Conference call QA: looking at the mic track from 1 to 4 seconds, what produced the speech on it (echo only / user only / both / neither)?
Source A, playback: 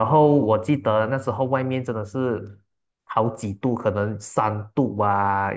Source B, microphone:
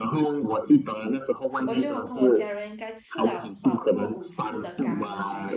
both